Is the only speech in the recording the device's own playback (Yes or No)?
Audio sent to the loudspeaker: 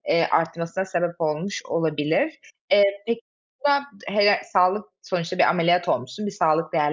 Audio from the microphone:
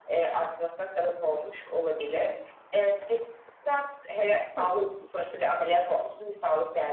No